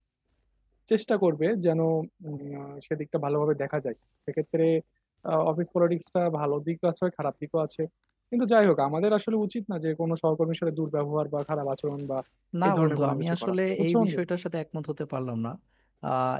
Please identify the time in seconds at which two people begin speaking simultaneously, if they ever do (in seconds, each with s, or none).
12.7 s